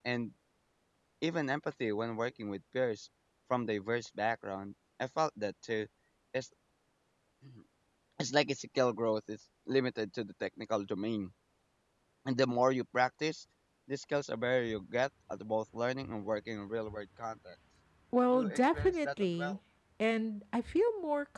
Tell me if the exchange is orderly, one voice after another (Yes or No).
No